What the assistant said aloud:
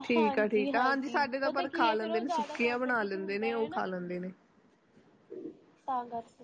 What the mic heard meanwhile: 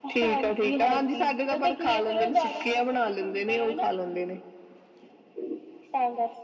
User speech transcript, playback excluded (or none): none